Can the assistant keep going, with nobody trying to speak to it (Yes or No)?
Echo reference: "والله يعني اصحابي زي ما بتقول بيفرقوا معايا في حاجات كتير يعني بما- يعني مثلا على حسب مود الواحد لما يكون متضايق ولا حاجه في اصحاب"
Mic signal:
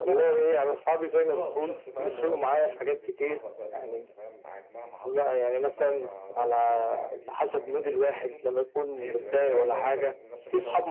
No